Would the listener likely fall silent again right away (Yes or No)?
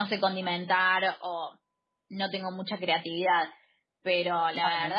Yes